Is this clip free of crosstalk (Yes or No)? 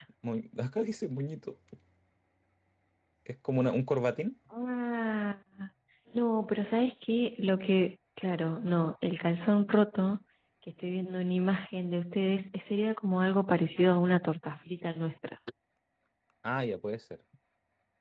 Yes